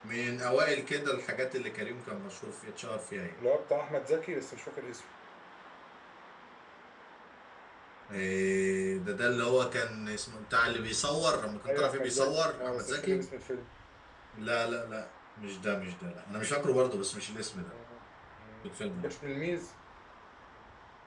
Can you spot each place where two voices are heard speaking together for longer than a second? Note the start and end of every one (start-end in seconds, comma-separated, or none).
11.7-13.2